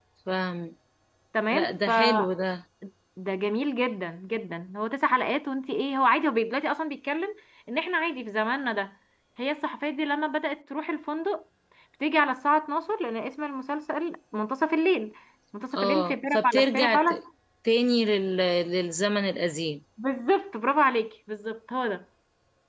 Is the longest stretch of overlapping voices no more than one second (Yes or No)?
No